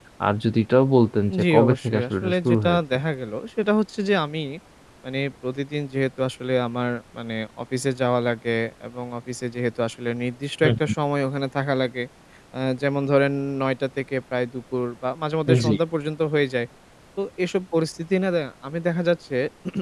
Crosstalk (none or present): present